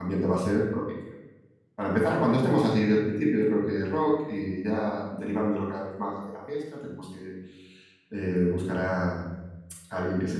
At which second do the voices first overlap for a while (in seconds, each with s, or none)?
none